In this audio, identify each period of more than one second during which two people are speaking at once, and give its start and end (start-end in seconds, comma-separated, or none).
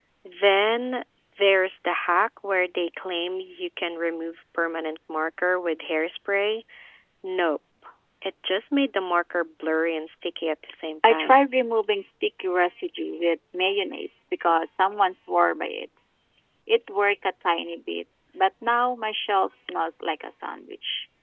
none